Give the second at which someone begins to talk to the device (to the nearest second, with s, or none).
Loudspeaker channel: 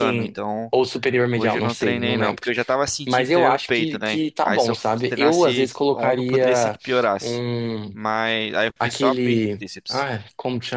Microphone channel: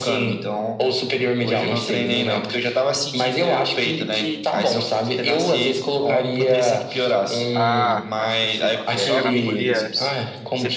8 s